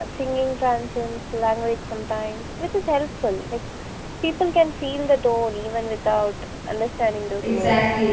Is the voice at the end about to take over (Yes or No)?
Yes